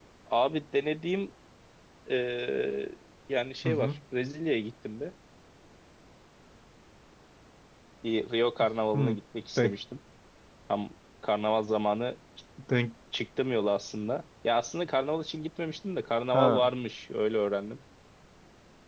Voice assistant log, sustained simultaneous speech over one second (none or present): none